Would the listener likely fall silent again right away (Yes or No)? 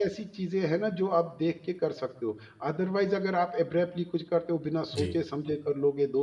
Yes